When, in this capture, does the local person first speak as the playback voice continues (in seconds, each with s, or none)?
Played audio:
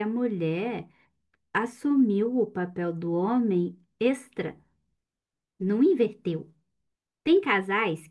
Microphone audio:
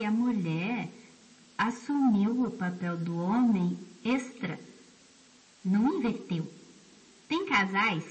none